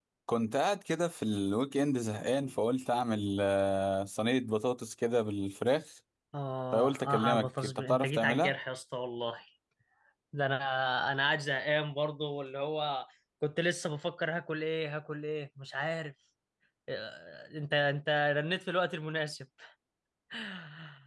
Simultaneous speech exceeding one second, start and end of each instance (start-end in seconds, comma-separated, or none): 6.7-8.5